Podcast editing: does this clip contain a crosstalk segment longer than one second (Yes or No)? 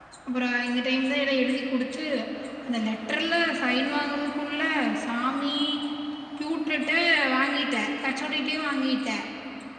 No